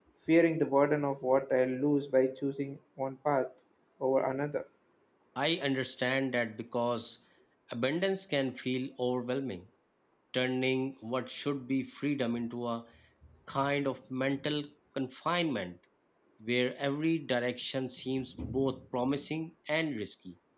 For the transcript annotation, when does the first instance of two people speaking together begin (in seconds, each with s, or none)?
none